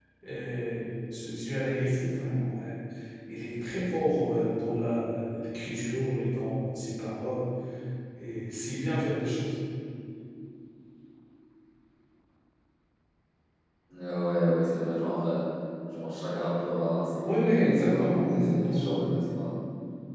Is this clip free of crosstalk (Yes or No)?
No